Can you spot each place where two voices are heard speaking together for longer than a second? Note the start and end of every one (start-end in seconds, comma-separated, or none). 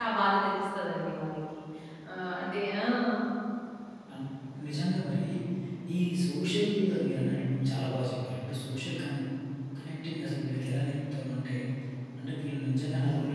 none